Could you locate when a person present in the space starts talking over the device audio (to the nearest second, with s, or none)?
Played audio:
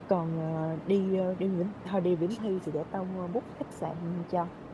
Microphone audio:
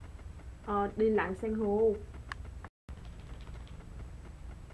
1 s